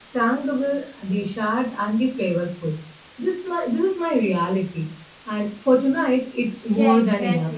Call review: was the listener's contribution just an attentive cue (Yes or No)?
No